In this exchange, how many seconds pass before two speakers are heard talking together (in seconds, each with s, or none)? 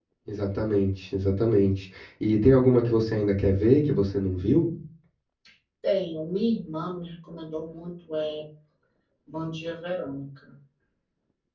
none